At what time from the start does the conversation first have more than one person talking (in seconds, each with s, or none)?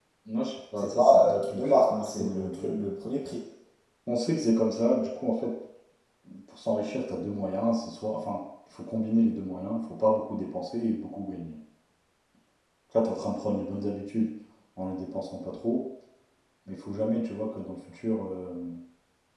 0.8 s